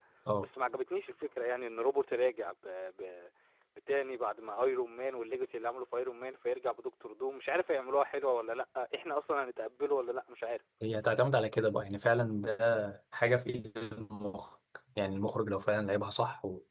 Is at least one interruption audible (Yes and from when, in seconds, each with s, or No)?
No